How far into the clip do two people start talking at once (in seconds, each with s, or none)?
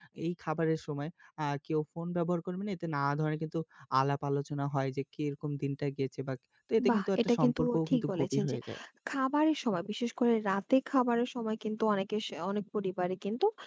6.8 s